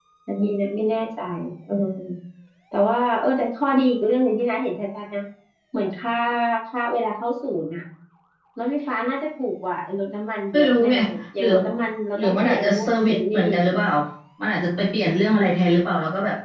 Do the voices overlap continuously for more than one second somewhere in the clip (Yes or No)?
Yes